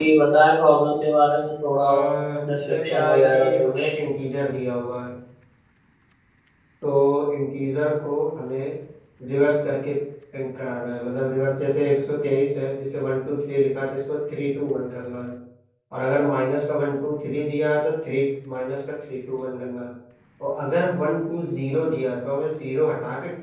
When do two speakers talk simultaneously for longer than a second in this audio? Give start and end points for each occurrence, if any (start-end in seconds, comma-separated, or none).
2.5-3.9